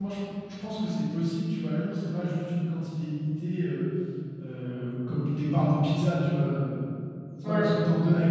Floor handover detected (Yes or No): No